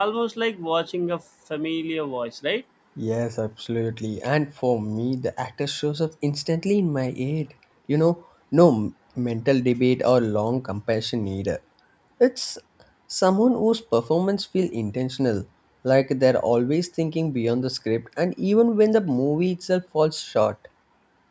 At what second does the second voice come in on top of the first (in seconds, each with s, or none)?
none